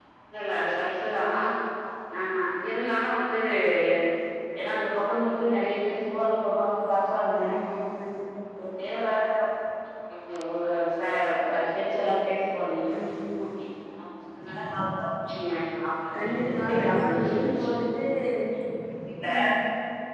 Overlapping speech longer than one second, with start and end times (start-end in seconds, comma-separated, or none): 16.2-17.4